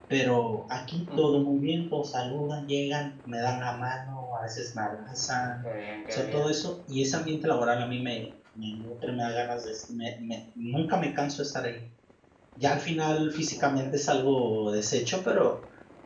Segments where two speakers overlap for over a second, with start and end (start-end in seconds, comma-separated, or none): none